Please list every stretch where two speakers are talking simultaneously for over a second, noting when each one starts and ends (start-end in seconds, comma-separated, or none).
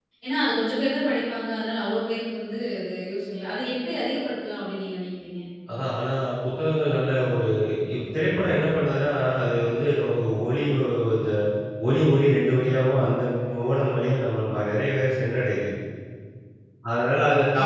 none